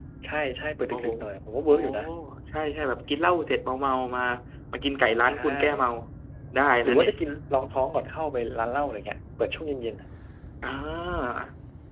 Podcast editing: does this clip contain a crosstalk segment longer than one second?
No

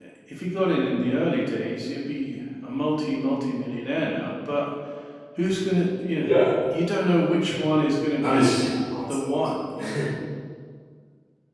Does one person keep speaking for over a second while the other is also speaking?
No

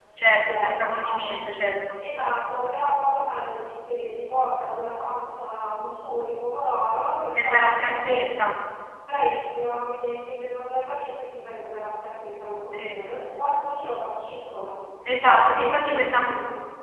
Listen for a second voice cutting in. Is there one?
Yes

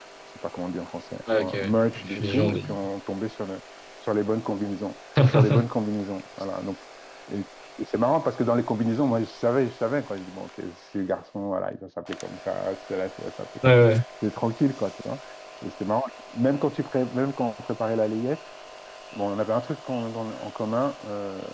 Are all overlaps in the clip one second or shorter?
No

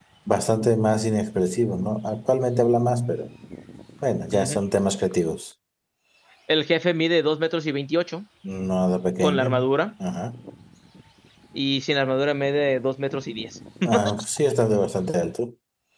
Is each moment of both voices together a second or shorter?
Yes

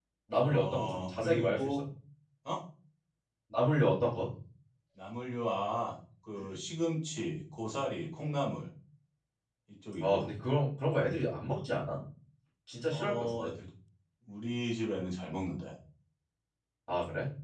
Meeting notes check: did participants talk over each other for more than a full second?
Yes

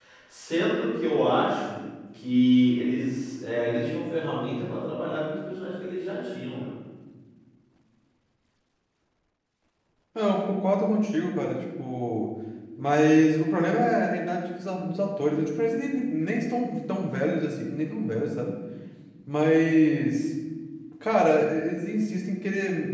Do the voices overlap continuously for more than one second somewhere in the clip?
No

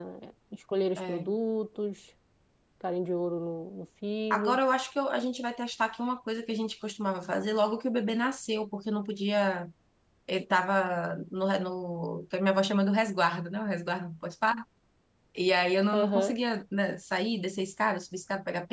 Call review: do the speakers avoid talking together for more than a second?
Yes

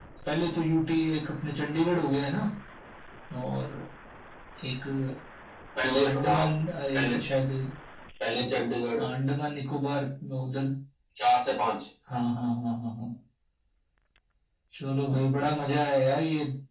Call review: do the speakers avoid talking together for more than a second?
Yes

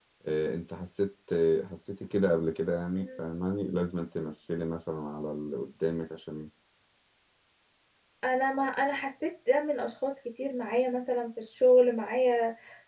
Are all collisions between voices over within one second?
Yes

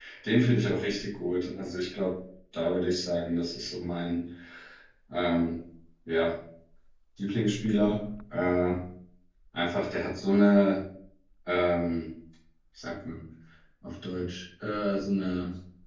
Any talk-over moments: No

